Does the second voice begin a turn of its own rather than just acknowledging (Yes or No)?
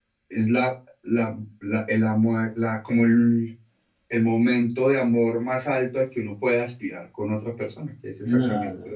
Yes